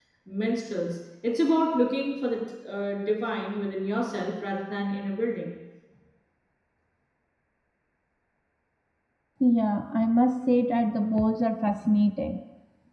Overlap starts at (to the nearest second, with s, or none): none